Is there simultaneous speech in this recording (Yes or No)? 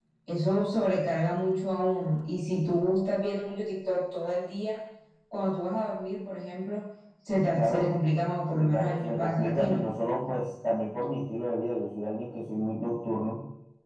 Yes